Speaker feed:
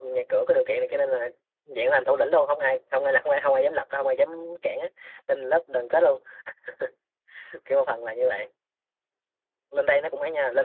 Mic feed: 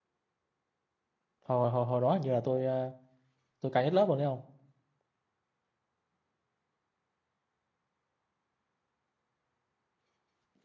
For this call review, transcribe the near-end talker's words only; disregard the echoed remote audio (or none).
hồi hồi hồi đó hình như là tôi ờ, tôi cao nhất lớp luôn đấy không